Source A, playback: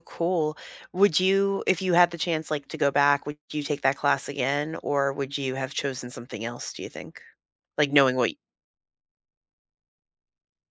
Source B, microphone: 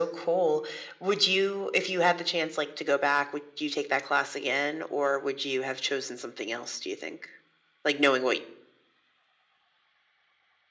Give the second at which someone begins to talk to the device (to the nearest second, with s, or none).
none